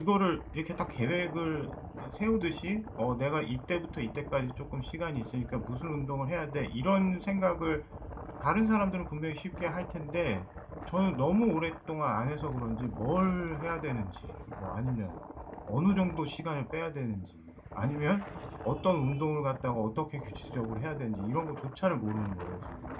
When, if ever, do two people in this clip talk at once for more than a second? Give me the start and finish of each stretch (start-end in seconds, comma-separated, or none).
none